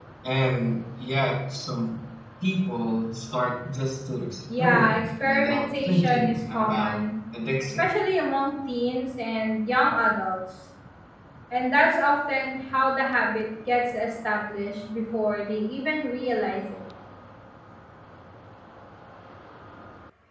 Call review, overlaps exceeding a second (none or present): present